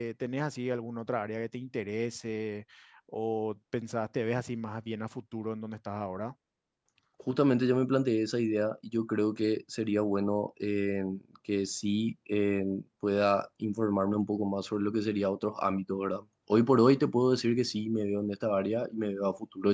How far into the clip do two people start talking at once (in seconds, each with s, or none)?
none